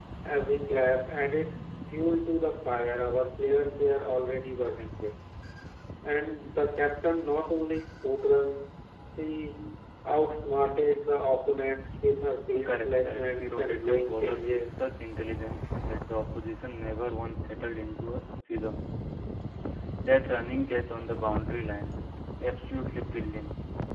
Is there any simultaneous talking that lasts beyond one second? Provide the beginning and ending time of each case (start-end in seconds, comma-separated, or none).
12.5-14.8